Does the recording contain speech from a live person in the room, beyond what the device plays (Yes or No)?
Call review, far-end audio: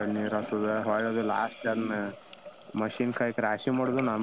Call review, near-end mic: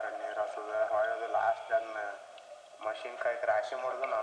No